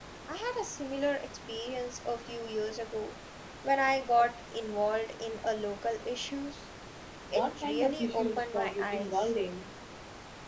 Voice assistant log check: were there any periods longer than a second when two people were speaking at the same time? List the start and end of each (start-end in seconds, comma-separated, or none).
7.3-9.3